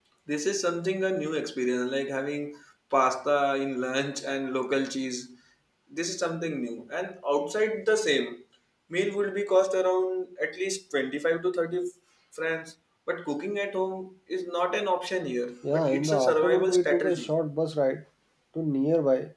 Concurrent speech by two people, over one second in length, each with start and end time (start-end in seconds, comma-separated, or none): 15.7-17.3